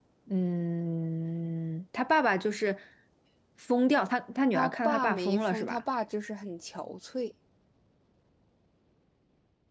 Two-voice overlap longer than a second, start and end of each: 4.5-5.8

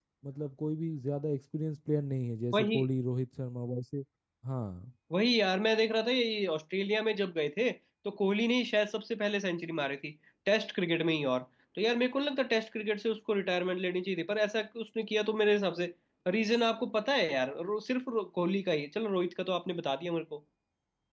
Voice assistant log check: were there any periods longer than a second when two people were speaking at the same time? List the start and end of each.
none

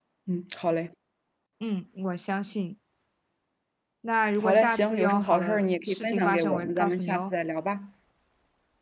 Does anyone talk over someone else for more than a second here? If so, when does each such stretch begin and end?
4.4-7.3

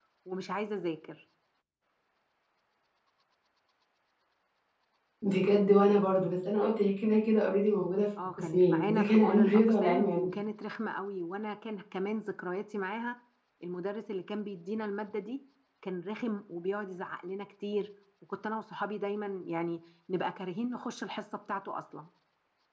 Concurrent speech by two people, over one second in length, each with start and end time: 8.3-10.3

